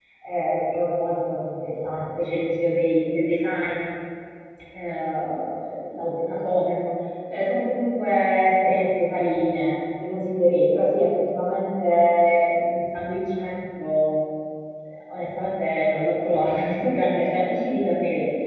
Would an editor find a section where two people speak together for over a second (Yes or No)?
No